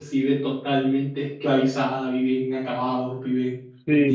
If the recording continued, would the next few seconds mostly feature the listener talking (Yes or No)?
Yes